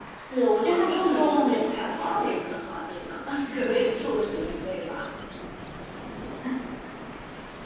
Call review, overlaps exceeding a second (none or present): present